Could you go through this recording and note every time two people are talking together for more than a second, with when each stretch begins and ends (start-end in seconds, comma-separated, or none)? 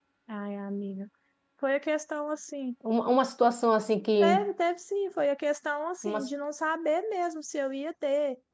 none